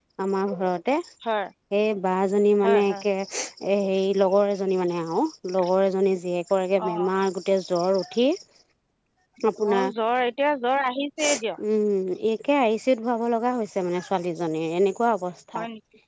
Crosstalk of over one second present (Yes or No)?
No